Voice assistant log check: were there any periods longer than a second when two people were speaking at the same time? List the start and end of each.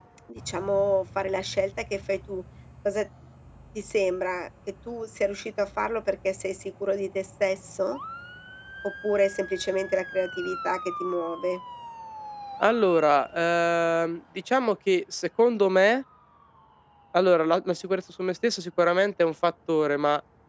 none

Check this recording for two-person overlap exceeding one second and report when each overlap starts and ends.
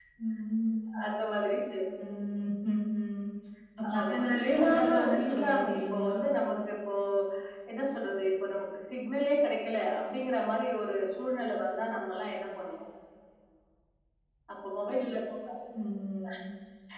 4.0-6.2

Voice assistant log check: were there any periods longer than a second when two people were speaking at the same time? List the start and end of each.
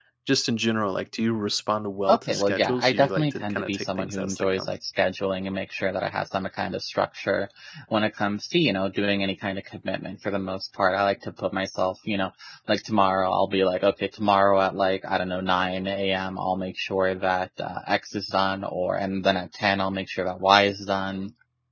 2.1-4.7

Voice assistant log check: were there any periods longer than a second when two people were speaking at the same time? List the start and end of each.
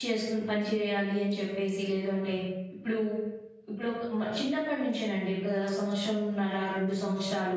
none

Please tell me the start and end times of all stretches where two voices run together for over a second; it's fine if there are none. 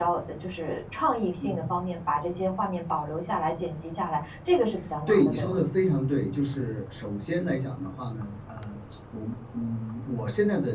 none

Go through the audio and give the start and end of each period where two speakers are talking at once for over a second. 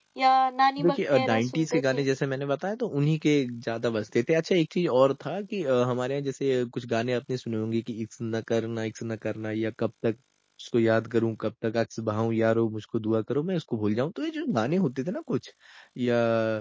0.8-2.0

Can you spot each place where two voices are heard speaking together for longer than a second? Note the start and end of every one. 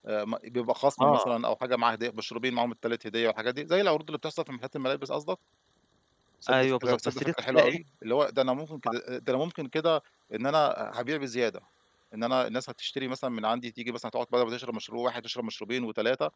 6.5-7.8

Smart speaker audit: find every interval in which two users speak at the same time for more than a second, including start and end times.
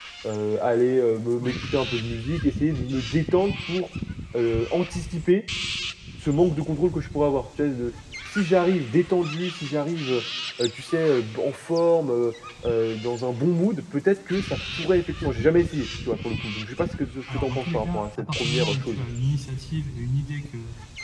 17.3-19.1

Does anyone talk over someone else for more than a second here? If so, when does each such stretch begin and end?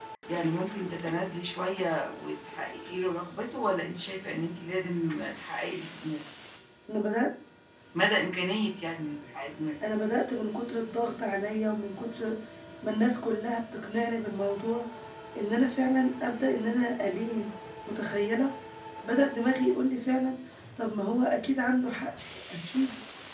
none

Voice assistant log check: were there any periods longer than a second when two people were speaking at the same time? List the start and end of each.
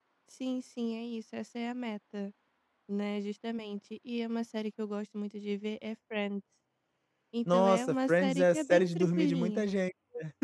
7.5-9.7

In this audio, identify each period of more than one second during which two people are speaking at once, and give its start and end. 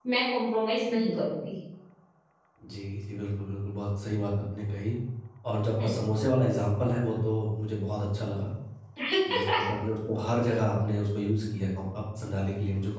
none

